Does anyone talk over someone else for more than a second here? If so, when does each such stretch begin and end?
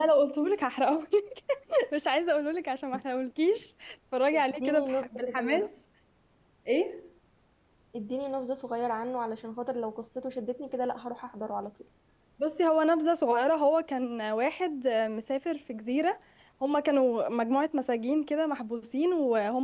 4.3-5.7

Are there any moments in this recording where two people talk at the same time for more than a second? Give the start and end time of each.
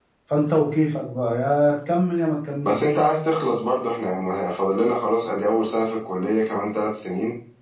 none

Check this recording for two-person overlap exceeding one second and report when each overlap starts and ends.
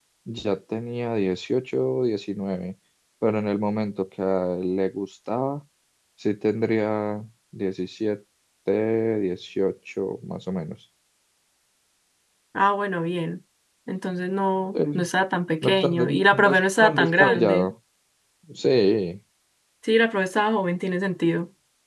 15.6-17.7

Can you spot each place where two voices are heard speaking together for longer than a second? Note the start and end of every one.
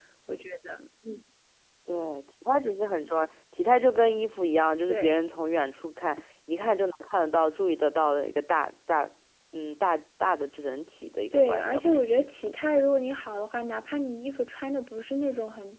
11.3-12.6

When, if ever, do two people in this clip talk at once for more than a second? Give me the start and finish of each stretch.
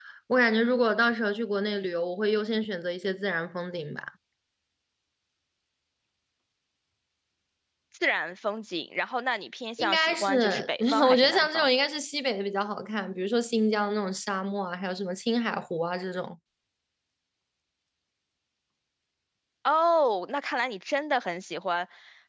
9.8-11.7

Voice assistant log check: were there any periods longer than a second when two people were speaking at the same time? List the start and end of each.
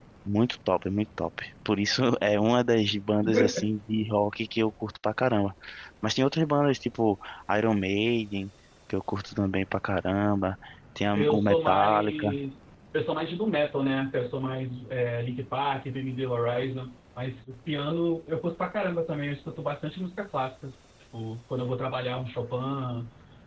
11.2-12.4

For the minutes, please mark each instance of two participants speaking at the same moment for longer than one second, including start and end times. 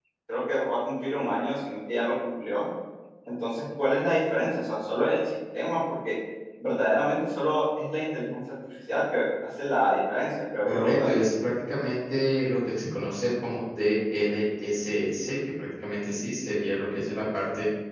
none

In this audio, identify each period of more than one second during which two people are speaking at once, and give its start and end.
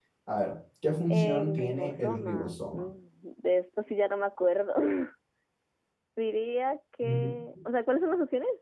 1.1-2.9

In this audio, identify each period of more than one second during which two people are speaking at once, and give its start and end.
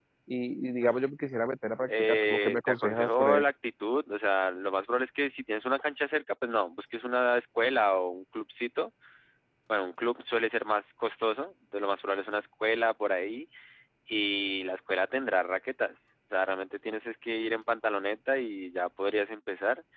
1.9-3.4

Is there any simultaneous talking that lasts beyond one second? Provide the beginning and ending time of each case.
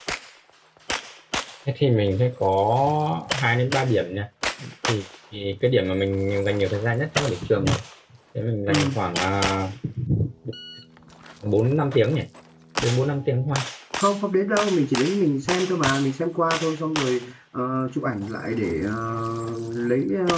none

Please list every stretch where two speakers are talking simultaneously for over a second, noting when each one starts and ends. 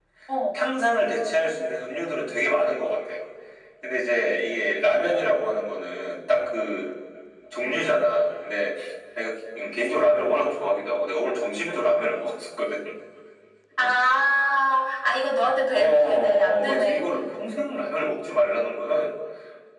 15.7-17.1

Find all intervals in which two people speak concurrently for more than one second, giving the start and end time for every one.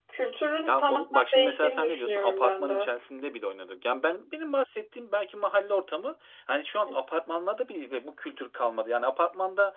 0.7-2.9

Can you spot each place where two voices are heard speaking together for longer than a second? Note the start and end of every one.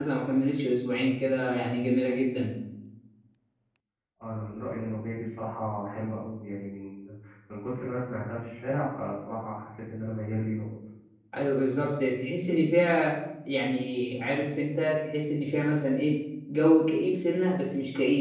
none

